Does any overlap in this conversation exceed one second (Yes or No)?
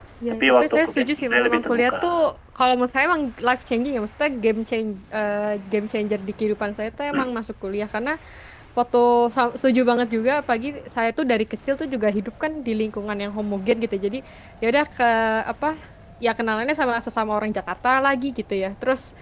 Yes